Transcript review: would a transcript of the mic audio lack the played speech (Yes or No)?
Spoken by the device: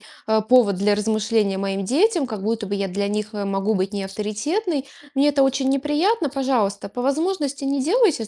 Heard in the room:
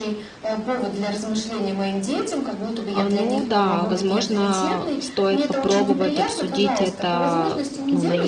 No